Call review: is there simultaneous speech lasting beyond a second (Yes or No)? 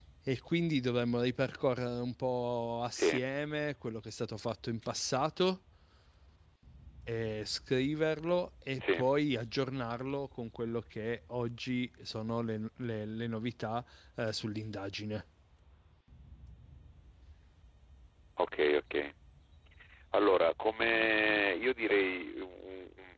No